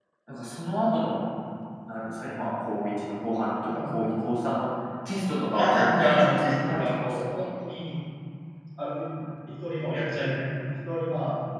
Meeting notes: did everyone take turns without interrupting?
No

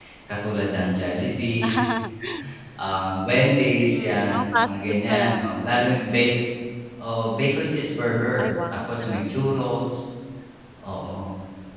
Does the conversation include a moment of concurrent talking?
Yes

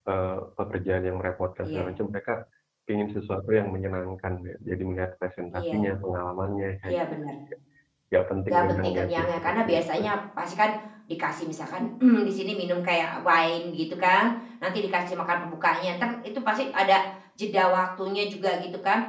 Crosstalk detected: Yes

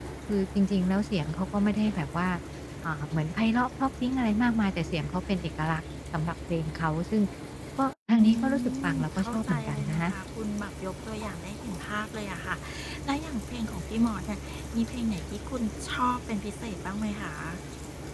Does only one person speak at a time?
No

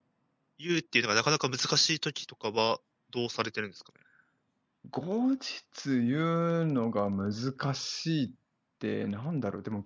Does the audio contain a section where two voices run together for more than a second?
No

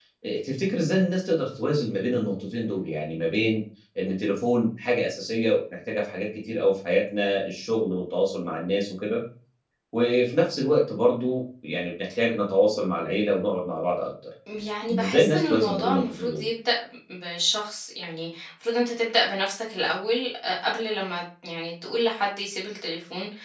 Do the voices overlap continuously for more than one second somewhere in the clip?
Yes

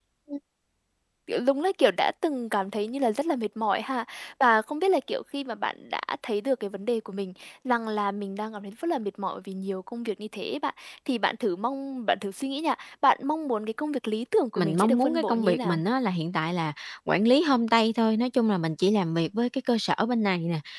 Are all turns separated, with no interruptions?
No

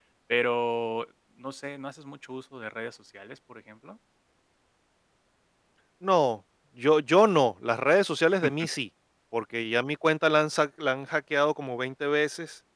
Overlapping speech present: No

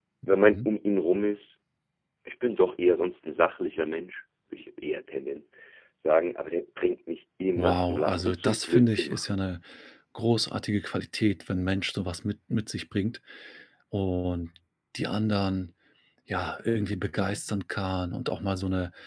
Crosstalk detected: Yes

